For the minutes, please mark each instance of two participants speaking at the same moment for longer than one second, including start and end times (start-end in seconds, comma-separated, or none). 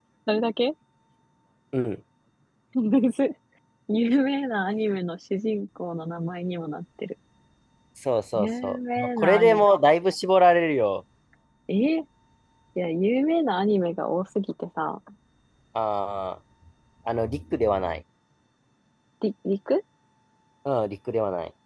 8.3-9.7